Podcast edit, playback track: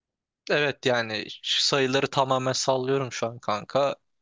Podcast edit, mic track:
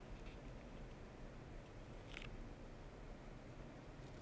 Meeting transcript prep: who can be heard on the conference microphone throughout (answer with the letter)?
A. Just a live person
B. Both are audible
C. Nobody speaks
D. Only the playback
C